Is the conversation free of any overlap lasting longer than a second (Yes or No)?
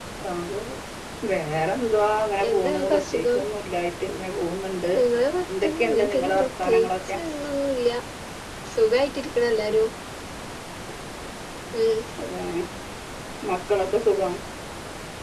No